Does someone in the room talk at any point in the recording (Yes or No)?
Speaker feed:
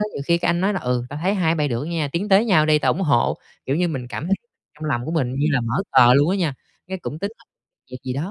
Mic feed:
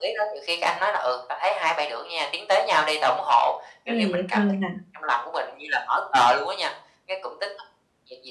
Yes